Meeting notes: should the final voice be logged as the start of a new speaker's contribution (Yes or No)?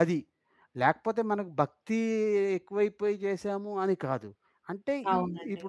No